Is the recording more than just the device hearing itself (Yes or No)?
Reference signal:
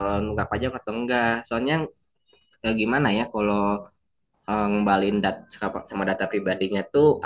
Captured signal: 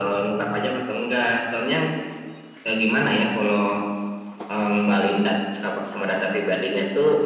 No